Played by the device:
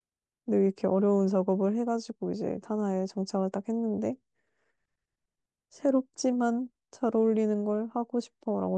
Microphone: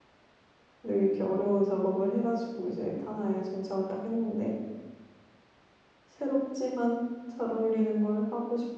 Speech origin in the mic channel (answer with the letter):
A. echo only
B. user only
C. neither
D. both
A